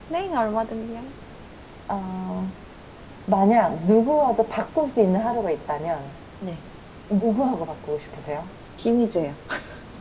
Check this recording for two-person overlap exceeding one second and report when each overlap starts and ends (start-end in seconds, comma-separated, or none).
none